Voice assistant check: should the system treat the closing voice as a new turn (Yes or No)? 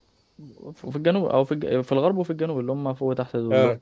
No